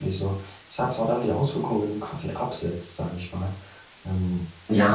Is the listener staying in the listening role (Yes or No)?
No